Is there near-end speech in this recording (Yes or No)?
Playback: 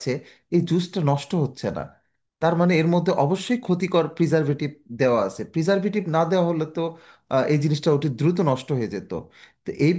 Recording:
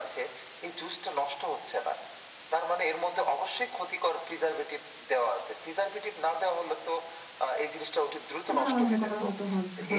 Yes